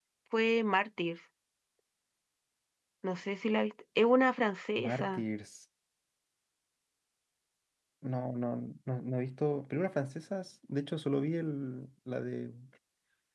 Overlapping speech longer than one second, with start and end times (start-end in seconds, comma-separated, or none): none